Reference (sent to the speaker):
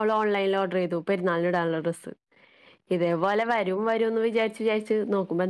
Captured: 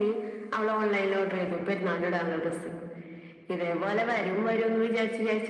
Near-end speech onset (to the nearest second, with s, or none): none